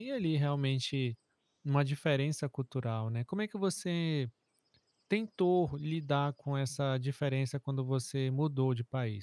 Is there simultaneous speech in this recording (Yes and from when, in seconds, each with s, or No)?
No